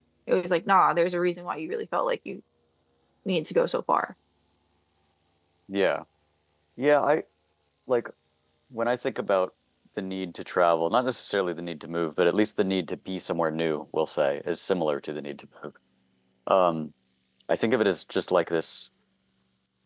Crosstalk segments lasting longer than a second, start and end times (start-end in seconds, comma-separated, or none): none